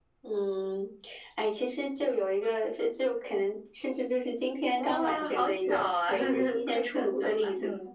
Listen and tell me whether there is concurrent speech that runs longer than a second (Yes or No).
Yes